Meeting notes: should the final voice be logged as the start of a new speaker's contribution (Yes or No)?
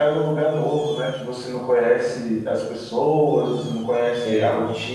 No